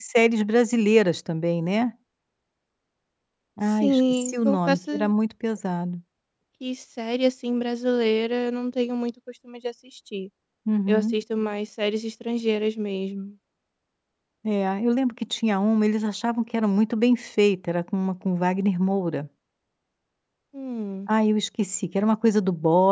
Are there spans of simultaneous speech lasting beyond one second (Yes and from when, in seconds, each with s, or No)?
Yes, from 3.8 s